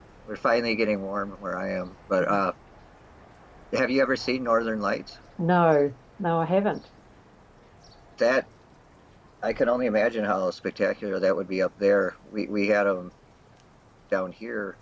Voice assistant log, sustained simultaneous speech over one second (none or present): none